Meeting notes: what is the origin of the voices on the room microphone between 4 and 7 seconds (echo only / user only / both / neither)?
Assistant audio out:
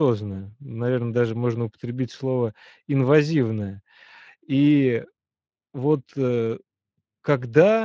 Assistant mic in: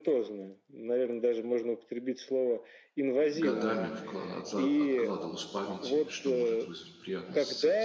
both